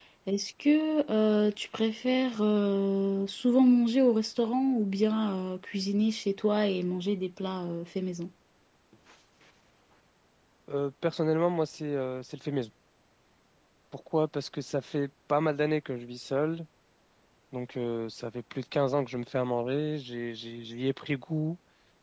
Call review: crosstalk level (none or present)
none